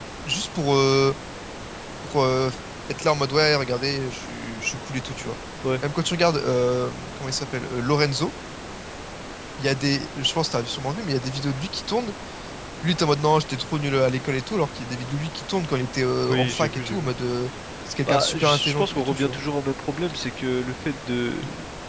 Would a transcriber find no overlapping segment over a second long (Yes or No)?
No